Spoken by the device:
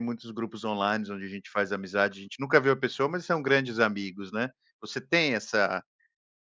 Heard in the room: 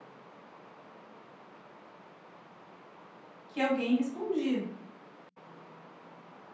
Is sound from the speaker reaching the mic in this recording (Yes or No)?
No